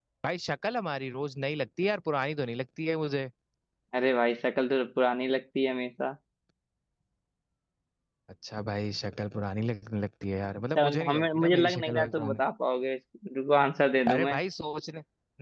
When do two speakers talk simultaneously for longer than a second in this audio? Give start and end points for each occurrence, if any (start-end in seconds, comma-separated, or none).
10.8-12.4